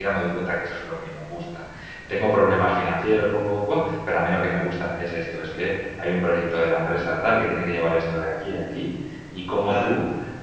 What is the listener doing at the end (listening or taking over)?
listening